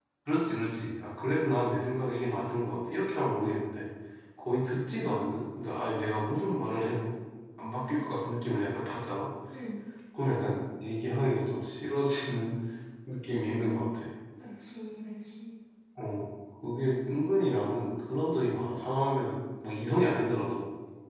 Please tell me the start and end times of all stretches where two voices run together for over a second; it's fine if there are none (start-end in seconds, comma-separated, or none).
none